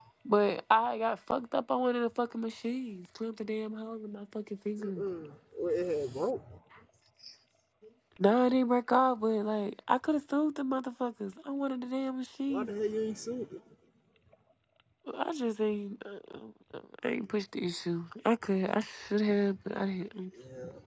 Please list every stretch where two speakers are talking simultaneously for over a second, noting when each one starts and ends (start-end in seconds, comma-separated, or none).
none